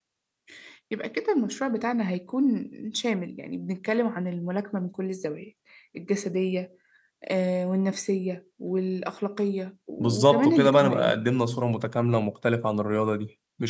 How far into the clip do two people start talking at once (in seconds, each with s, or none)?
10.0 s